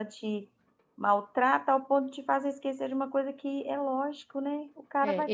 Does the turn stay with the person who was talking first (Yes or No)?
No